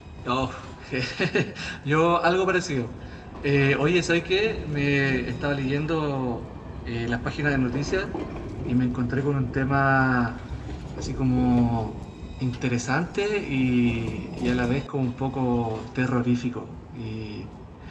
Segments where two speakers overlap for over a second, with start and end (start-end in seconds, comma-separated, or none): none